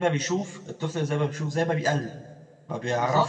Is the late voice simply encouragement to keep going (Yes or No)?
No